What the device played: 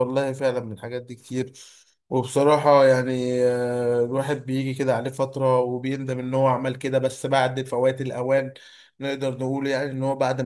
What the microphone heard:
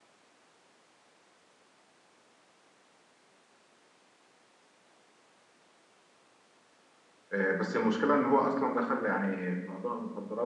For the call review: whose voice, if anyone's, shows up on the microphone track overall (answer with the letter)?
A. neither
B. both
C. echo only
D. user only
D